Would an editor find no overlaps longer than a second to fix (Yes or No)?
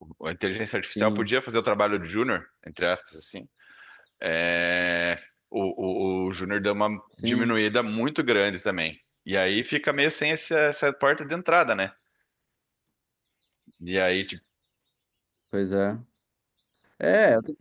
Yes